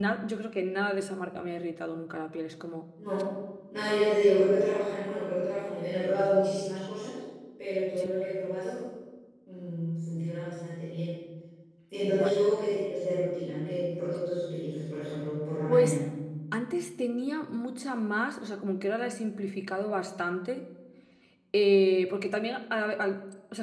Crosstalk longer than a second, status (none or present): none